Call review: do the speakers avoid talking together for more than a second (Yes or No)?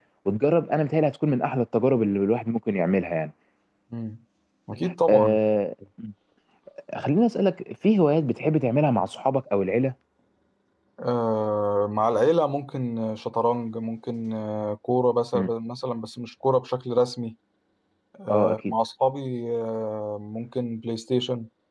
Yes